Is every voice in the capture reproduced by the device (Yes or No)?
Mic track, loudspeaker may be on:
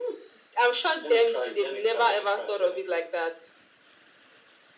Yes